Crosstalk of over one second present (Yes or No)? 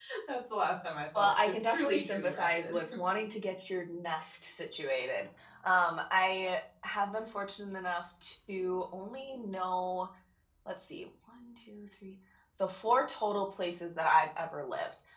Yes